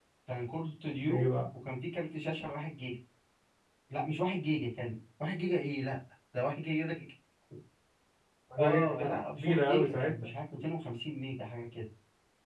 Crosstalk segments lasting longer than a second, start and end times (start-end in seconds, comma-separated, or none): 8.9-10.4